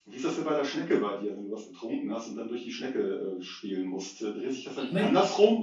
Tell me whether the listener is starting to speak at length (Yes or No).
No